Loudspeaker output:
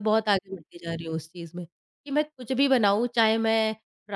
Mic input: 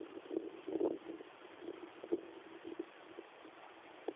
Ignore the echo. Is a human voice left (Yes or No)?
No